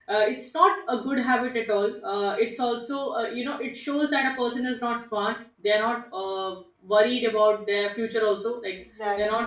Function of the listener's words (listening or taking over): listening